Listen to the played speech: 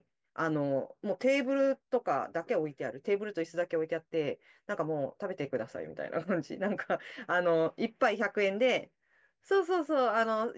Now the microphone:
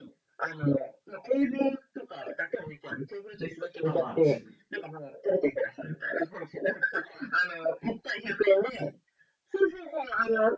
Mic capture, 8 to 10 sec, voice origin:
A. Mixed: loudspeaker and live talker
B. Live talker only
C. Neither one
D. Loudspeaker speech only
D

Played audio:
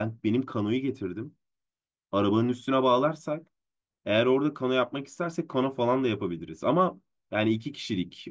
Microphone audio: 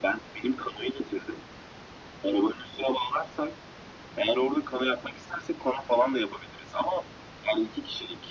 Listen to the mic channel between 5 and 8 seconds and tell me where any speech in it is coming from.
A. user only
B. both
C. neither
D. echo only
D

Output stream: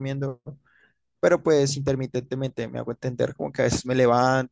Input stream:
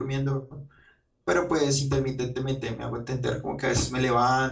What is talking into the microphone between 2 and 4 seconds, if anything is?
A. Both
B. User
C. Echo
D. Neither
C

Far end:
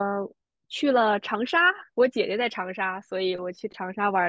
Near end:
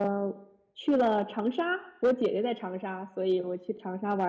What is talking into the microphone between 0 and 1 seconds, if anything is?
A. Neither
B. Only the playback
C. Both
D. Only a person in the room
B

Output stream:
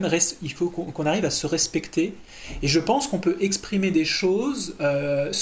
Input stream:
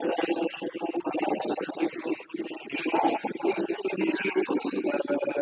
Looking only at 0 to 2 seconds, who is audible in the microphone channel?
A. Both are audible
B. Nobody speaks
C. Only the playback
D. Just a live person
C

